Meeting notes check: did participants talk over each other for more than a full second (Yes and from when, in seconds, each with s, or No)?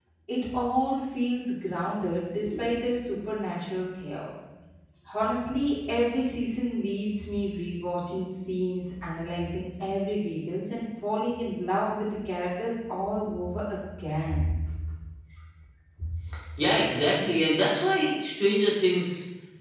No